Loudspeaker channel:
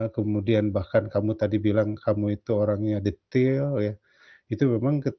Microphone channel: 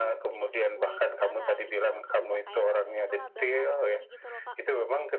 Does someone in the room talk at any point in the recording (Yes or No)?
Yes